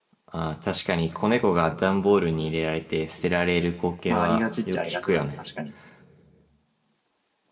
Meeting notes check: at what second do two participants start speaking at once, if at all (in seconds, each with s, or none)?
4.1 s